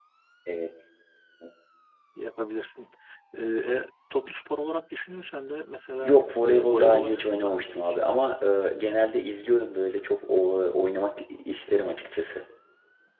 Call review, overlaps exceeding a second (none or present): present